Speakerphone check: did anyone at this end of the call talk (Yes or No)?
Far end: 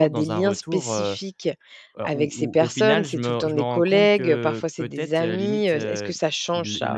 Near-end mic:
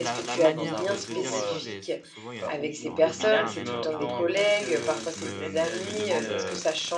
Yes